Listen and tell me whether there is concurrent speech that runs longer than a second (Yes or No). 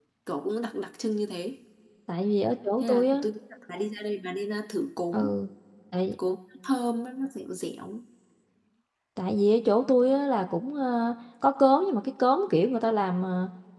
No